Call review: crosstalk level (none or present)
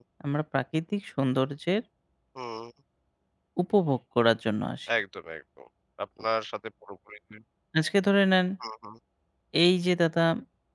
none